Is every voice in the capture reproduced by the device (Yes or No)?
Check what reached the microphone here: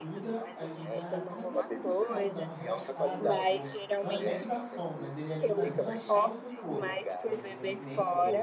No